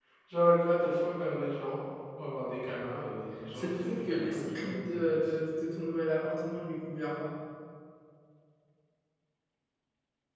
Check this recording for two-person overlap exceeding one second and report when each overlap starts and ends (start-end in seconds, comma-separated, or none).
3.5-5.3